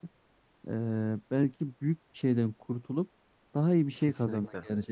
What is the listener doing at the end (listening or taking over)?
listening